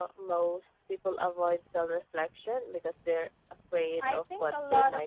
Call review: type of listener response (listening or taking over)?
taking over